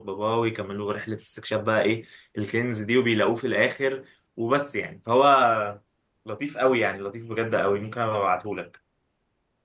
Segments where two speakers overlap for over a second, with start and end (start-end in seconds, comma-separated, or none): none